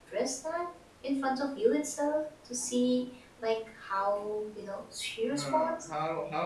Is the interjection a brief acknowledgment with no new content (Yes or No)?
No